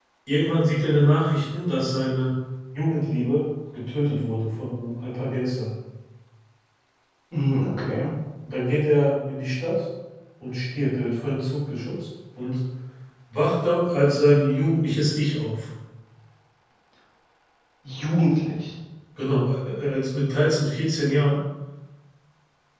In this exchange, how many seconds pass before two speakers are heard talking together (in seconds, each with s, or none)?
none